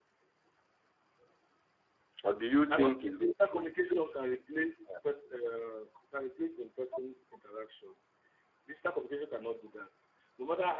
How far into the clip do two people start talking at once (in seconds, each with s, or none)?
2.7 s